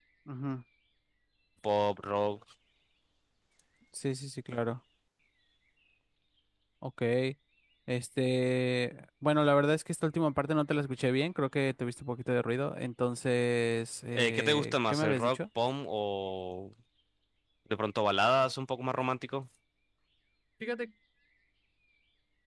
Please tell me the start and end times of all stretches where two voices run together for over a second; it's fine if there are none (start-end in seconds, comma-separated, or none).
14.2-15.4